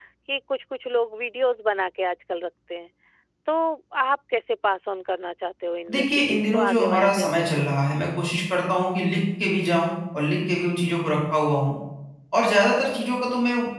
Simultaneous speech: Yes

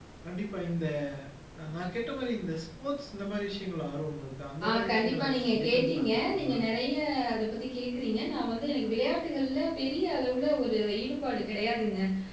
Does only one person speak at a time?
No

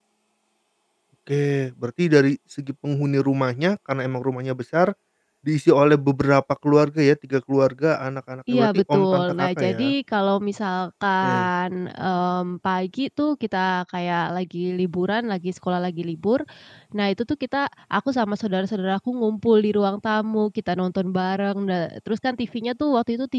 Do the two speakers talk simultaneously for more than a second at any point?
Yes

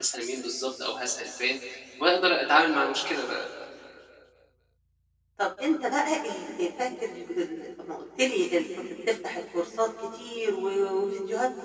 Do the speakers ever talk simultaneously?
No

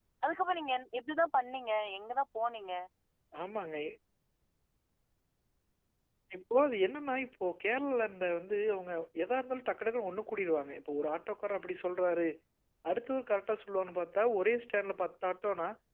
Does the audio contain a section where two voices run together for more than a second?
No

